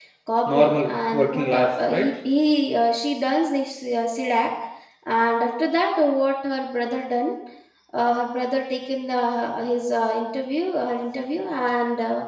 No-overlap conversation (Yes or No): No